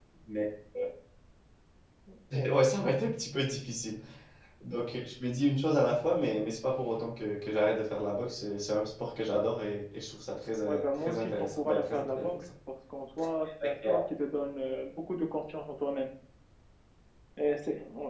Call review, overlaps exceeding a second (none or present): present